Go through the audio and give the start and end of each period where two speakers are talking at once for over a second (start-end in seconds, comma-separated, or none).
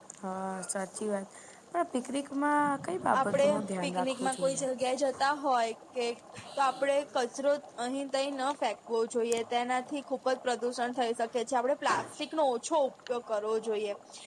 3.2-4.6